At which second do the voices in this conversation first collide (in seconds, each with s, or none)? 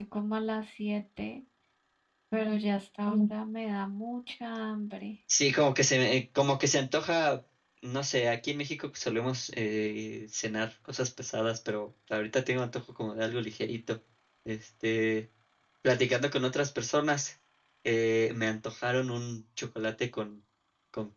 none